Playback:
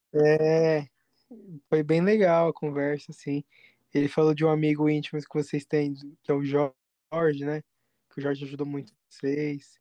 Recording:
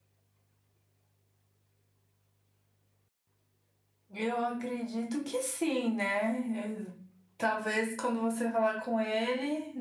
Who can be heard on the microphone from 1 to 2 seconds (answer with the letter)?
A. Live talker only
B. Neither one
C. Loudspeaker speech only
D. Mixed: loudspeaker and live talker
B